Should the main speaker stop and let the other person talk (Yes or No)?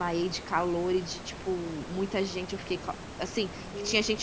No